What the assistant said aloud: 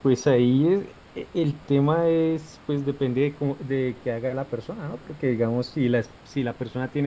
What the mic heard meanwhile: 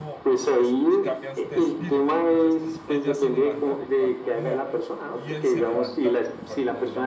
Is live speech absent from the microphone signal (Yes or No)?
No